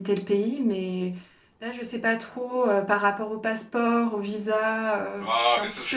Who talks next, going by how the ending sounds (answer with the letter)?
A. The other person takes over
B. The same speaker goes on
A